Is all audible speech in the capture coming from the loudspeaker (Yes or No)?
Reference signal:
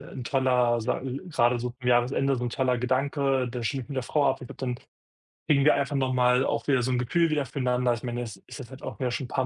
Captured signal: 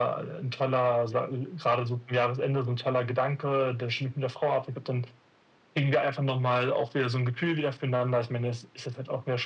Yes